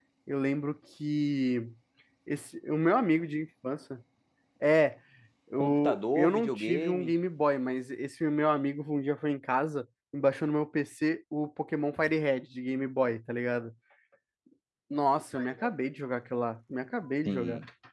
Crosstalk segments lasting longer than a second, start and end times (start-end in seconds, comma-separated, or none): 5.6-7.1